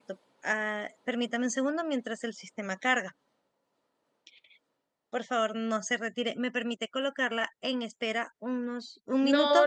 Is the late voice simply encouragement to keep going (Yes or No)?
No